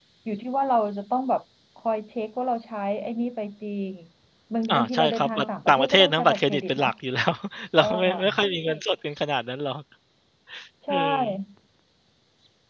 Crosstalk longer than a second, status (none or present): present